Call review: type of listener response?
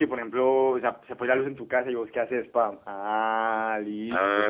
taking over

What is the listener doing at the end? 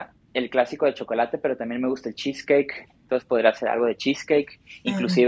listening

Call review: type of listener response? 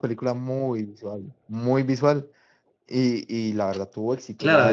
taking over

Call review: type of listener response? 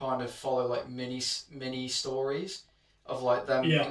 listening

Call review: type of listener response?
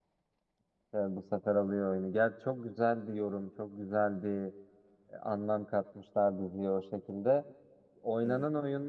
listening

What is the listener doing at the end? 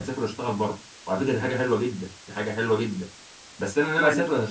listening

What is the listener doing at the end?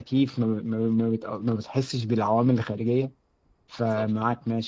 listening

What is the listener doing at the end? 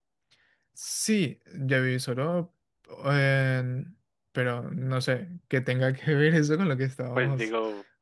taking over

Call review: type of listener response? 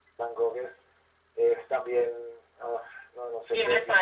taking over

